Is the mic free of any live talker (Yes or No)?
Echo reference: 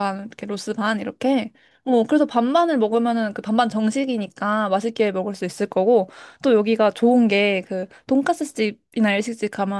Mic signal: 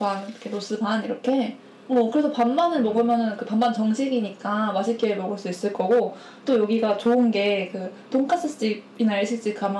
No